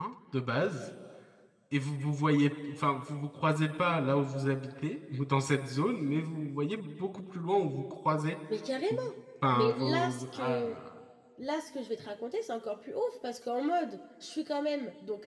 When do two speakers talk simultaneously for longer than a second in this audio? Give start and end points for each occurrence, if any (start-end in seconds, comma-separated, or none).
9.5-10.7